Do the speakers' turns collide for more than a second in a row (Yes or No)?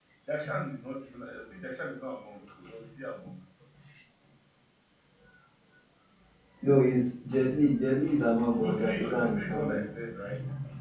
Yes